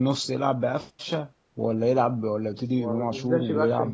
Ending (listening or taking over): taking over